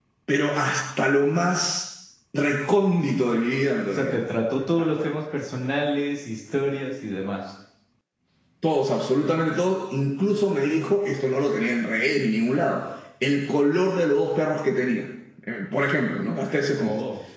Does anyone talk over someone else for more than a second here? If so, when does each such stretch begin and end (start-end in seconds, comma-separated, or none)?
none